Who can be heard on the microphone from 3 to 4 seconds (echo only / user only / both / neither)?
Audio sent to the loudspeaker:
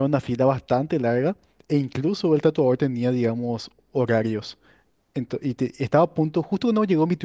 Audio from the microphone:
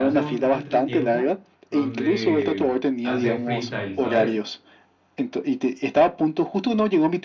both